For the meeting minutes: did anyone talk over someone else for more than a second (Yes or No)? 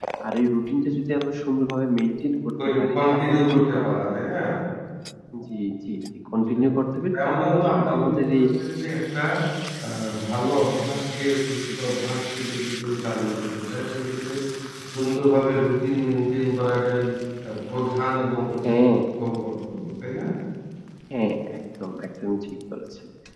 Yes